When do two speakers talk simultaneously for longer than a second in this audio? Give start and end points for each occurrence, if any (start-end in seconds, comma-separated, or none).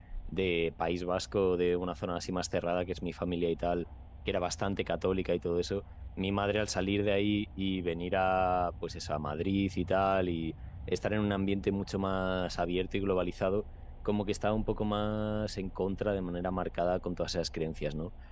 none